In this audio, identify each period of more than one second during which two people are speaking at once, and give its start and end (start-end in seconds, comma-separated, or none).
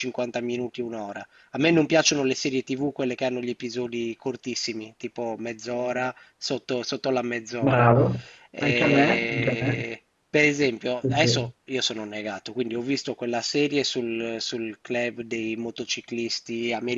8.6-9.8